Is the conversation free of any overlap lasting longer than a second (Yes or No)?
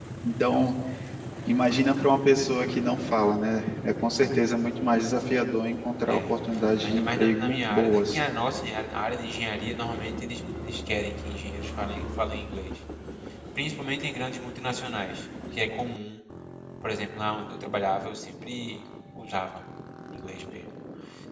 No